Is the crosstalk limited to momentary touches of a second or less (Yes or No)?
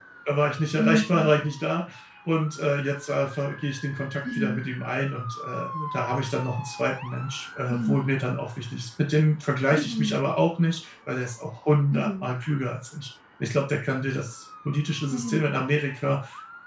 Yes